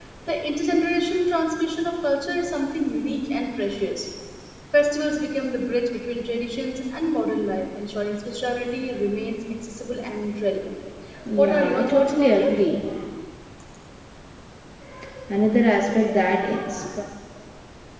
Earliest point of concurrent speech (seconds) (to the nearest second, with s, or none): 11 s